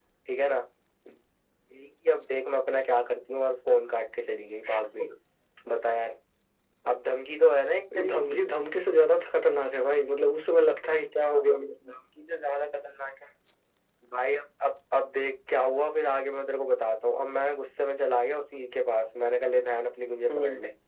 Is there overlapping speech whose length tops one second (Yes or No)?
No